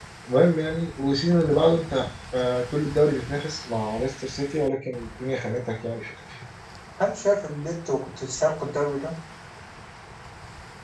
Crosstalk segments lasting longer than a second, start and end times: none

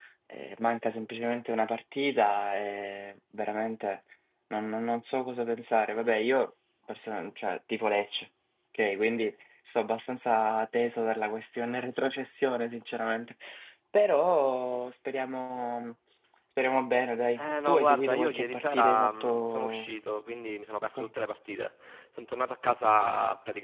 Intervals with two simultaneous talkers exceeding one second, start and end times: 17.4-19.9

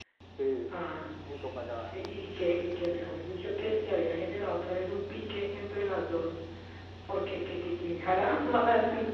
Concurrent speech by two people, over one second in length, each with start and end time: 1.9-3.2

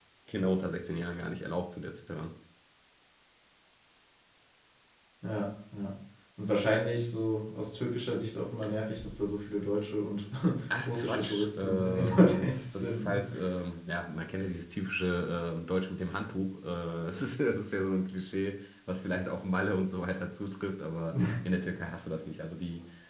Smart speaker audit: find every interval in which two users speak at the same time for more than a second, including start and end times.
10.8-13.2

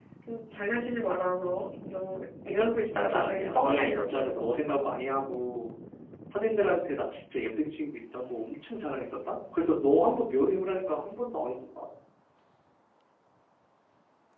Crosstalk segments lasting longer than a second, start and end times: 2.8-4.5

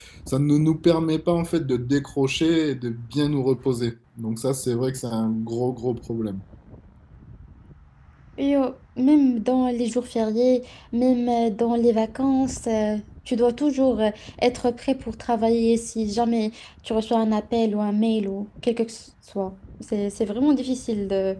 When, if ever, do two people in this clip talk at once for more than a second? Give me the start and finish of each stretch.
none

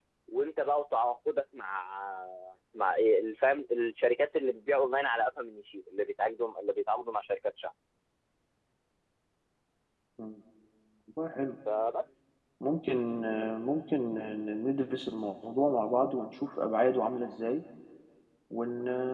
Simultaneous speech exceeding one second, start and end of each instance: none

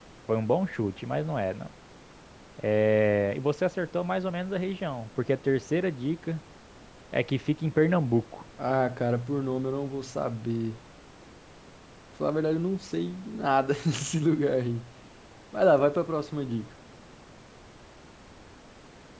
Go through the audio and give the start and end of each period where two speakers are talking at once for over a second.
none

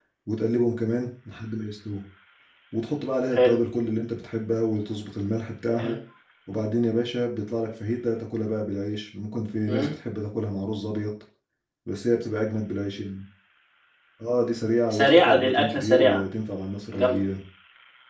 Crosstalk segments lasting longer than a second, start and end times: 14.9-16.2

